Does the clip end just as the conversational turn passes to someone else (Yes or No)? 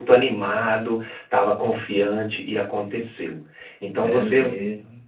No